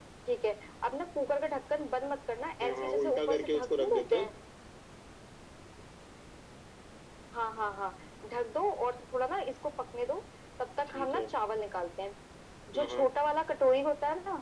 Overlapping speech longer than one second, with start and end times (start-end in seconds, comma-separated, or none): 2.6-4.3